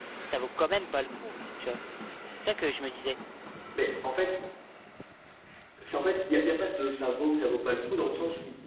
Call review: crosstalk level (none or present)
none